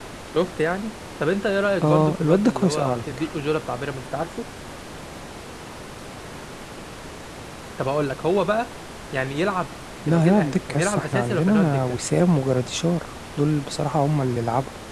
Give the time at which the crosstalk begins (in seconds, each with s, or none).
1.8 s